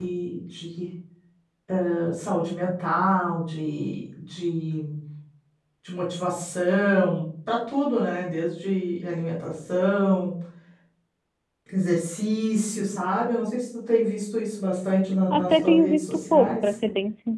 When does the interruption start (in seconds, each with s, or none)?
15.3 s